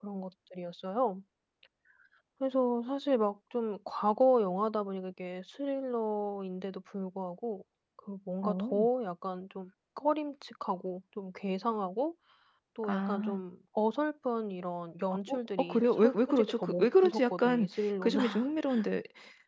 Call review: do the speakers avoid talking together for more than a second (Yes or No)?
No